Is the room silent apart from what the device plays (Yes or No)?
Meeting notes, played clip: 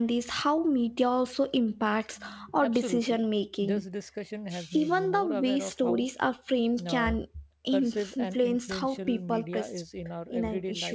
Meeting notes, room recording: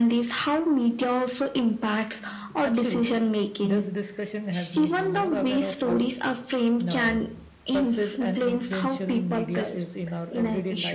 Yes